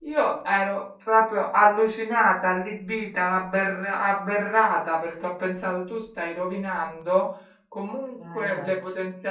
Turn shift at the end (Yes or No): No